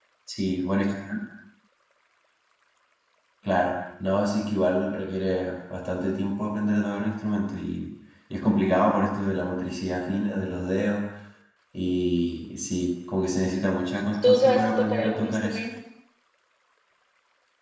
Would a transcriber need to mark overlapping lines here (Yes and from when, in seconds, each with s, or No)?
Yes, from 14.2 s